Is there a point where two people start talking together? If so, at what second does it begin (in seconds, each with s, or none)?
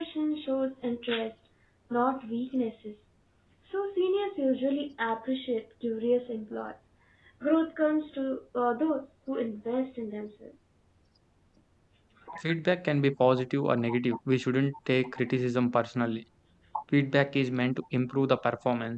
none